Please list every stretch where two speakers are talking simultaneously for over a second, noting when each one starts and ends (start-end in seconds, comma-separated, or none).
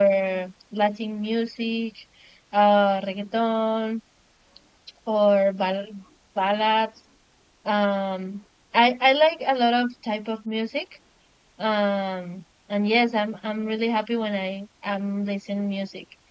none